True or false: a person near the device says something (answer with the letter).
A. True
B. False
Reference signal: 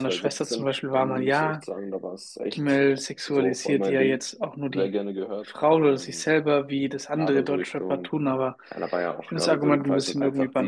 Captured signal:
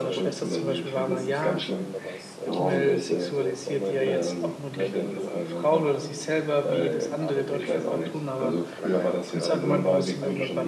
A